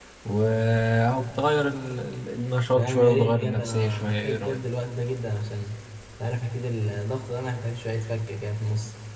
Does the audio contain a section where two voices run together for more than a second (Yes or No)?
Yes